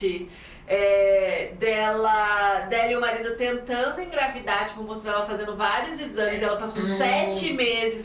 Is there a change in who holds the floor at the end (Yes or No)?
No